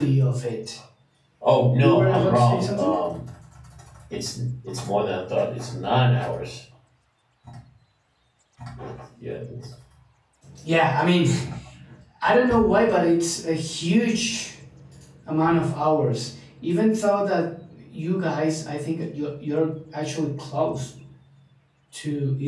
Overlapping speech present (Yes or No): Yes